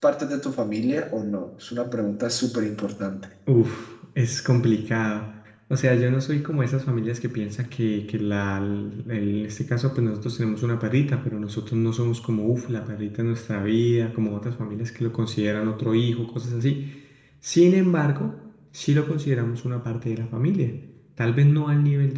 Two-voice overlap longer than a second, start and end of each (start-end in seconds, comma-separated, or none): none